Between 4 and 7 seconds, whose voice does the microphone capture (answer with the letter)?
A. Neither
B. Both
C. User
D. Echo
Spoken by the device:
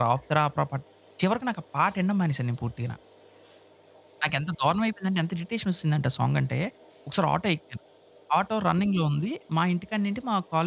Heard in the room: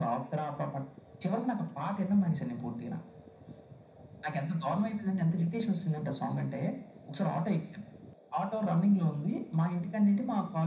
D